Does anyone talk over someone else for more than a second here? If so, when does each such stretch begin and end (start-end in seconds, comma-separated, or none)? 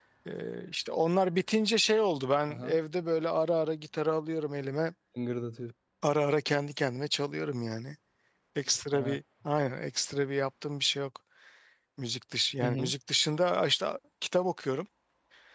none